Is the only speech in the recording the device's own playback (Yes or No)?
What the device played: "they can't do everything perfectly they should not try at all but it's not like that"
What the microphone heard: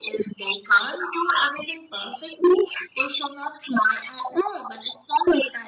Yes